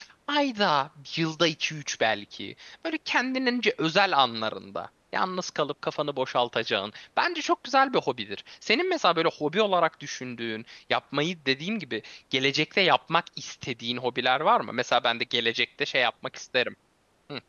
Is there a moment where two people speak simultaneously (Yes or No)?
No